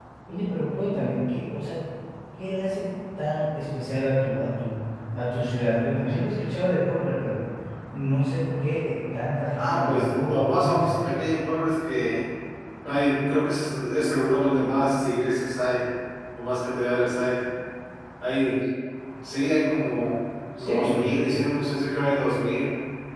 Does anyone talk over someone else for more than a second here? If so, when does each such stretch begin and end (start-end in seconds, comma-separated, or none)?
9.5-10.9